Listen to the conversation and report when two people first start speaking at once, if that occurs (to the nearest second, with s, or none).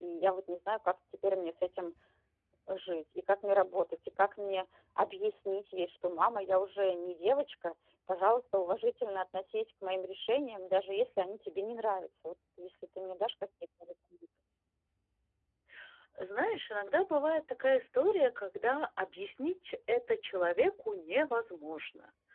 none